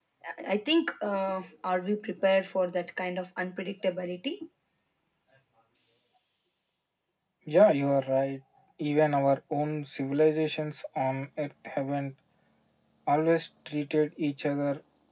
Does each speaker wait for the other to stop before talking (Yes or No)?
Yes